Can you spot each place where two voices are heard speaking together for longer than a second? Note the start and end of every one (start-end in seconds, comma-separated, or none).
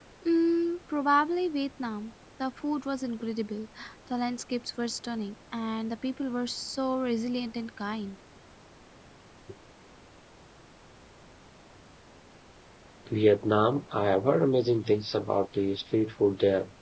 none